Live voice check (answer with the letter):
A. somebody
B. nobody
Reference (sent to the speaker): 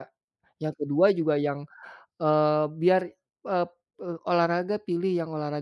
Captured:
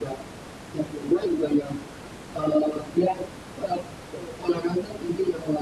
B